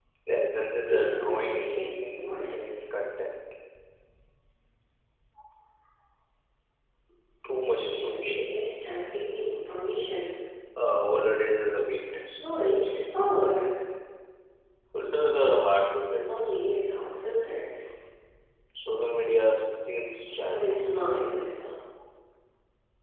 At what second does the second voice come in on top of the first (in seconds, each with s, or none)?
0.9 s